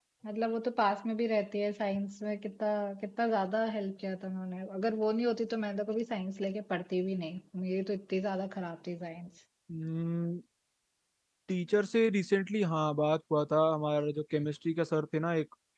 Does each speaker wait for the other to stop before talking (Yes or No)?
Yes